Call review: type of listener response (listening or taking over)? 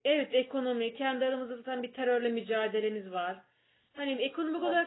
listening